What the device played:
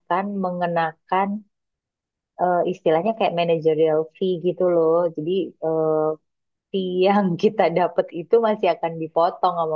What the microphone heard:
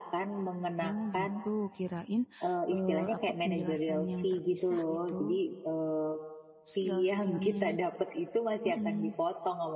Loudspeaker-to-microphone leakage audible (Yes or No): Yes